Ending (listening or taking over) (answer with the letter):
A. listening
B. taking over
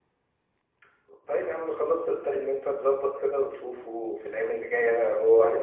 A